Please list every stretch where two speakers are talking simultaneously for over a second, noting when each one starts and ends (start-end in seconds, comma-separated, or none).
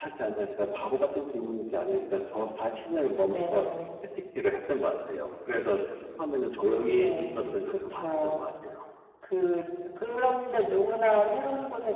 6.9-8.4